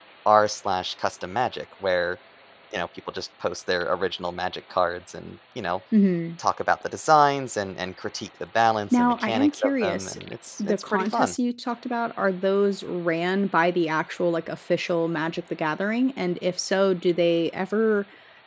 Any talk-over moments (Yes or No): Yes